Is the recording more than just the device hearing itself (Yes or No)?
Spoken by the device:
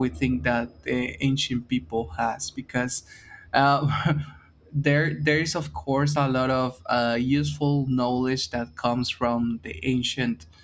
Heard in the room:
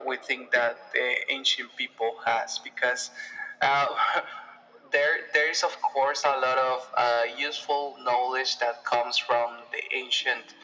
No